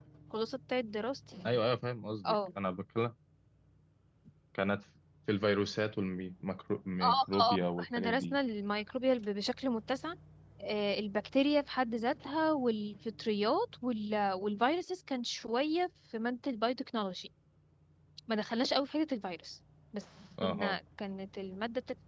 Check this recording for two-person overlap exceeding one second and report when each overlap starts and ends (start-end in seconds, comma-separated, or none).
7.0-8.4